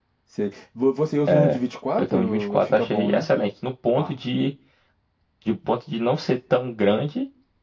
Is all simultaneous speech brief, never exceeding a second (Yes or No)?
No